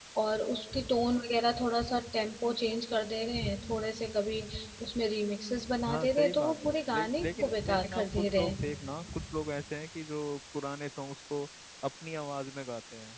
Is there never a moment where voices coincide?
No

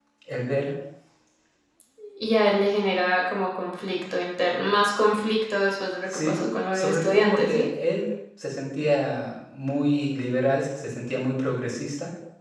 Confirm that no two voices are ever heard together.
No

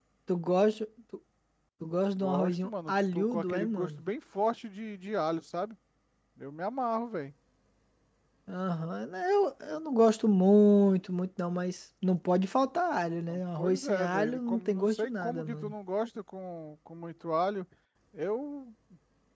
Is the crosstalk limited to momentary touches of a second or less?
No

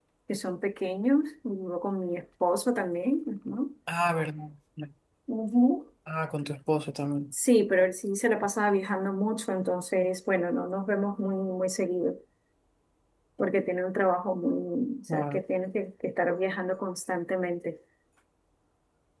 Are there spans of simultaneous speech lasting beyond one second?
No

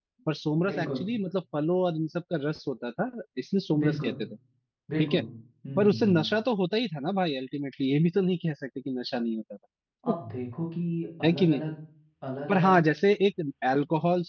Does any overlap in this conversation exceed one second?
No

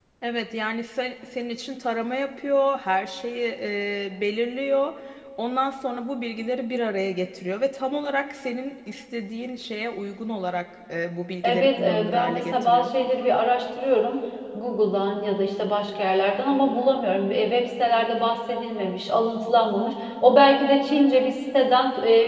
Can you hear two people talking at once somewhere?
Yes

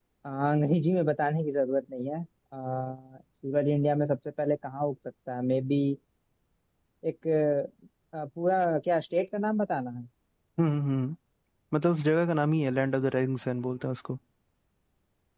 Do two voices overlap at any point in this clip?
No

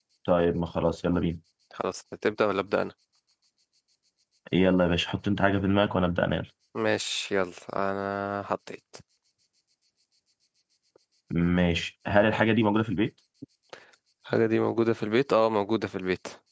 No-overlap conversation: Yes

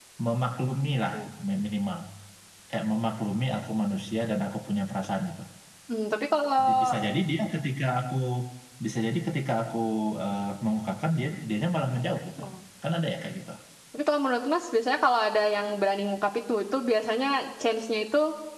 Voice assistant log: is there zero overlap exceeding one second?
Yes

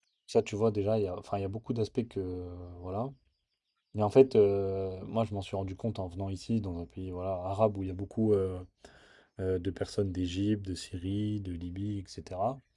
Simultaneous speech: No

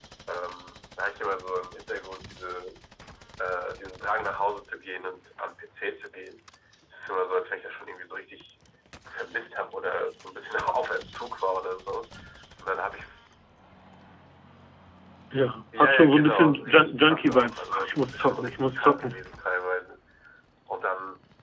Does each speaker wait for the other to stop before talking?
No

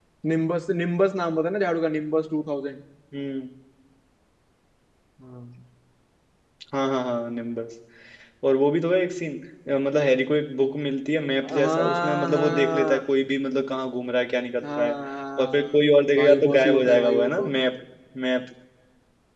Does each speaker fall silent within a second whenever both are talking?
No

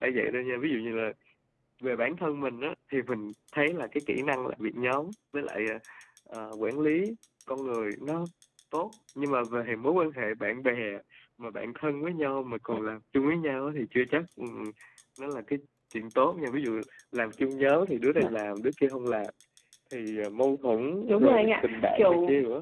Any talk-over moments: Yes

